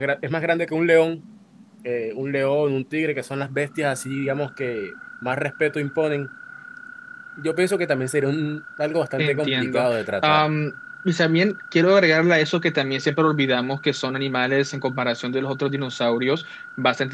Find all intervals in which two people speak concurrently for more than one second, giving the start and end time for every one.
9.2-10.4

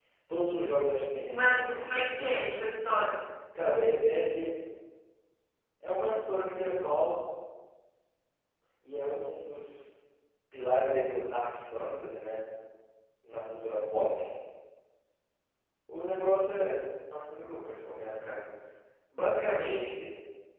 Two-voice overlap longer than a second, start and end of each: 1.3-2.5

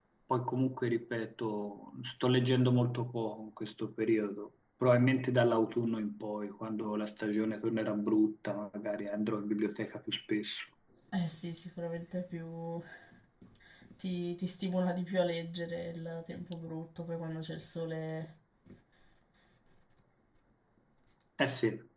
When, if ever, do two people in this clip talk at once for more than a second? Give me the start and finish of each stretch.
none

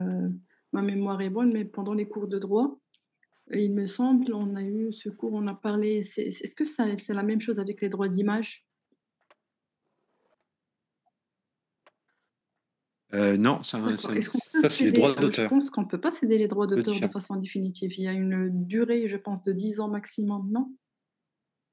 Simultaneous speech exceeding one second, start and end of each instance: 13.8-15.5

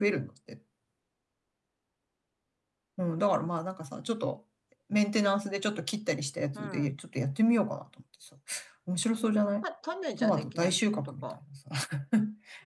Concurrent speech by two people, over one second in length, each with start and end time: 10.2-11.4

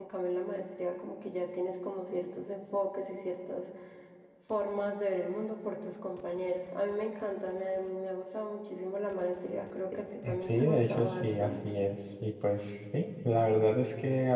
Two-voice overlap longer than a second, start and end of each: 10.4-11.7

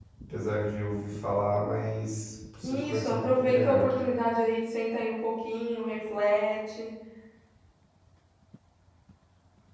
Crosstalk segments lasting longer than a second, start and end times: 2.6-3.9

